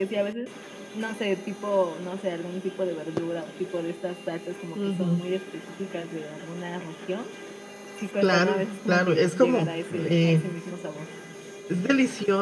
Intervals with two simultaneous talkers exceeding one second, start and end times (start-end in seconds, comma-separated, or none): 8.2-10.4